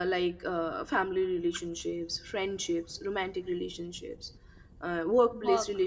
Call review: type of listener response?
listening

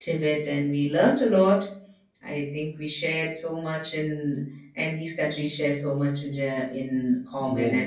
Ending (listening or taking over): taking over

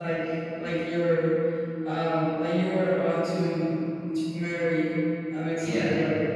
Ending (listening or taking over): taking over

